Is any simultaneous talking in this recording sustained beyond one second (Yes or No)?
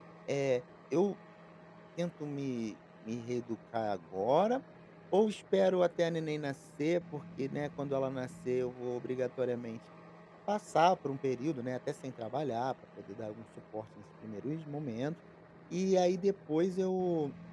No